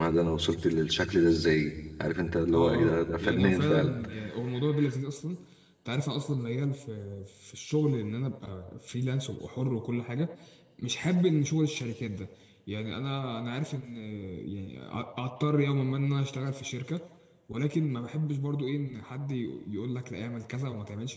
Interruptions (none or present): present